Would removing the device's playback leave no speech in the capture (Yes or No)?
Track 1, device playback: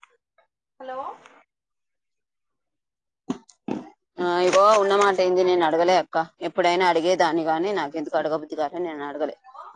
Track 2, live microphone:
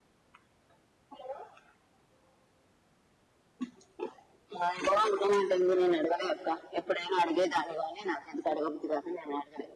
Yes